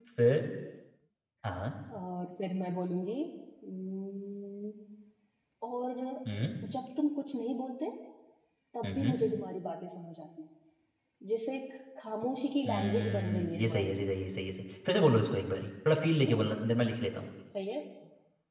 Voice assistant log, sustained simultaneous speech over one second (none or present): present